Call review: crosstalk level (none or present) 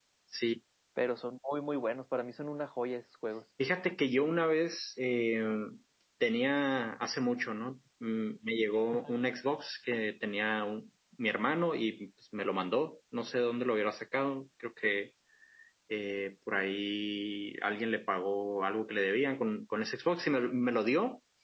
none